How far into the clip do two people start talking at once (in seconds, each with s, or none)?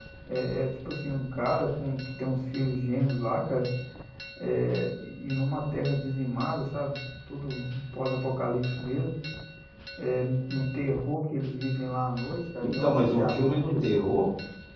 12.6 s